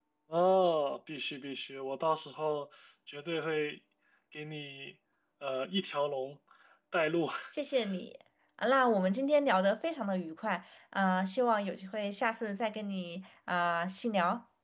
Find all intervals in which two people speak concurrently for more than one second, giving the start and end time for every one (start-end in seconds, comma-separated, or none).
none